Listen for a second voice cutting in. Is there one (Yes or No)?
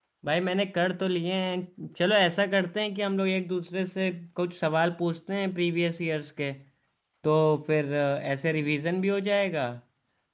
No